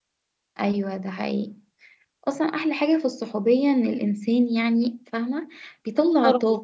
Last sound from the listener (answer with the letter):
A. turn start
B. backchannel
B